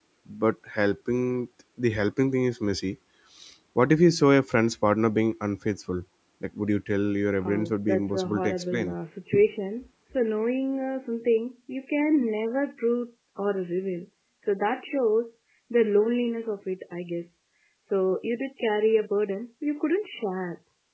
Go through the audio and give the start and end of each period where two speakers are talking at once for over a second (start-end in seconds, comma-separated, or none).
7.4-9.0